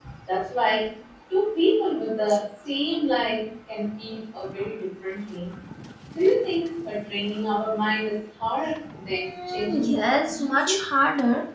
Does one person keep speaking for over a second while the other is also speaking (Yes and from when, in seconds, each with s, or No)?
Yes, from 9.1 s